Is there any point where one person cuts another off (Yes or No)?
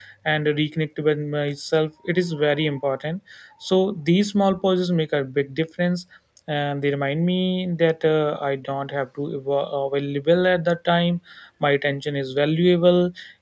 No